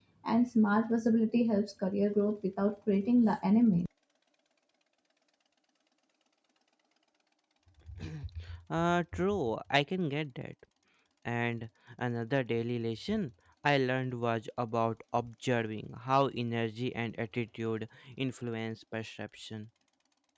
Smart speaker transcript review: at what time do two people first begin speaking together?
none

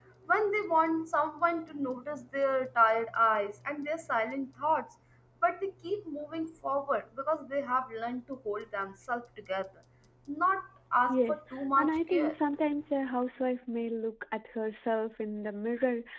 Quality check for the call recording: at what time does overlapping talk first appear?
11.1 s

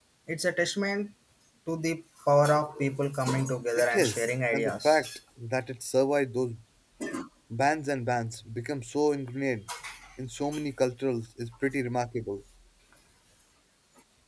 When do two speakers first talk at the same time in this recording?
3.8 s

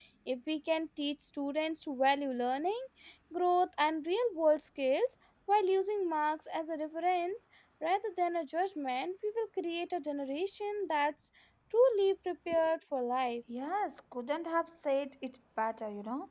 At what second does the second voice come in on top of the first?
none

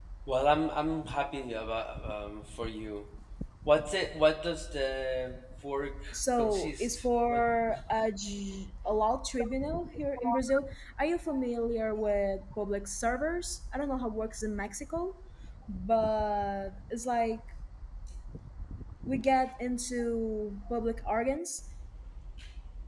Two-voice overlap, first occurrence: 6.1 s

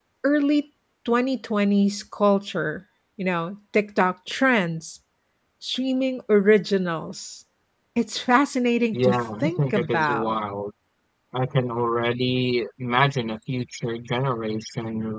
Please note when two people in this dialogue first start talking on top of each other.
8.9 s

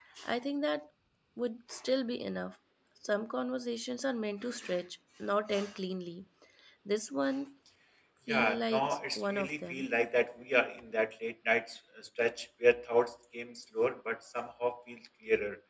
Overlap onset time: 8.3 s

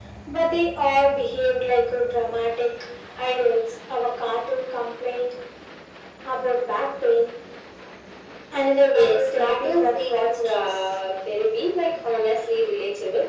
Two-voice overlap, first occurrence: 8.9 s

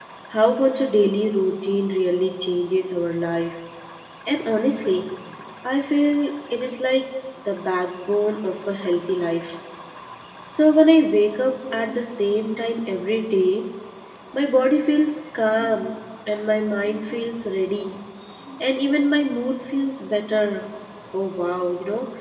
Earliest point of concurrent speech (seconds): none

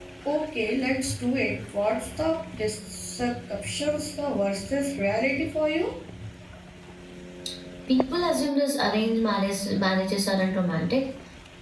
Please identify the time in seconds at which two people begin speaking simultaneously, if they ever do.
none

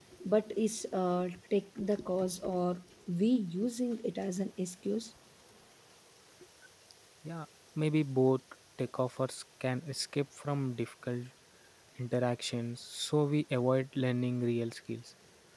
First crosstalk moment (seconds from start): none

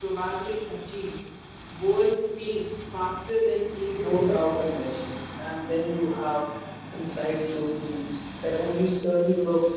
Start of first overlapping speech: 4.0 s

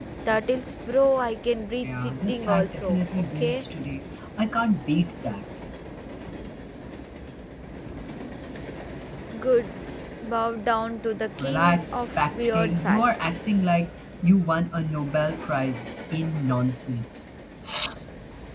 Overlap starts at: 1.8 s

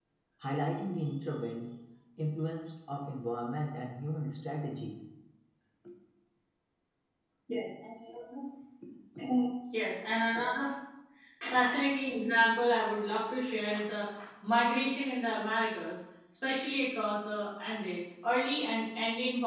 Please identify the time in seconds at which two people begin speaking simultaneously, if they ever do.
none

